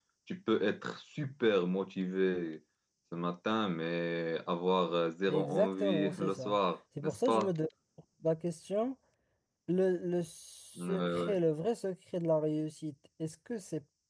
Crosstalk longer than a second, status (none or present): present